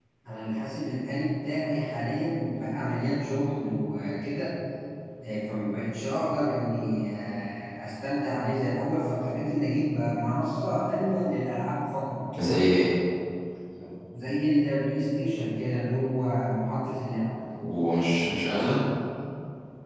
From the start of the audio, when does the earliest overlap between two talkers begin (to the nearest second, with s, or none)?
none